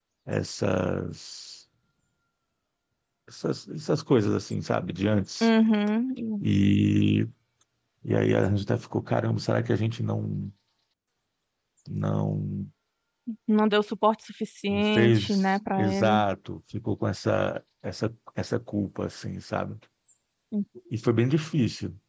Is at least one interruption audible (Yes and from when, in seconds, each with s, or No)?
Yes, from 14.7 s